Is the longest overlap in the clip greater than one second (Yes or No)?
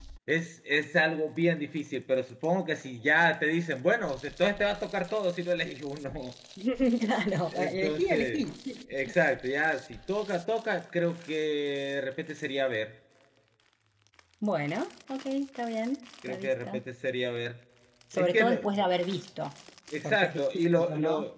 Yes